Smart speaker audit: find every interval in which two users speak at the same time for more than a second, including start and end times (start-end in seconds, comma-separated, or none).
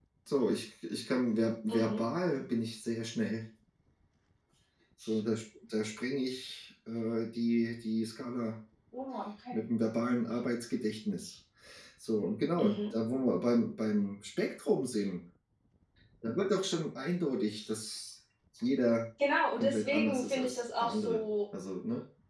19.6-21.2